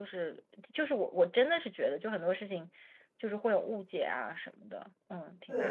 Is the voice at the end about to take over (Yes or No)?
Yes